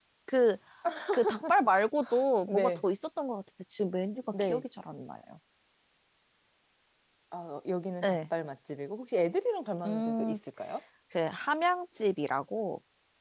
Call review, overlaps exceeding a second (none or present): none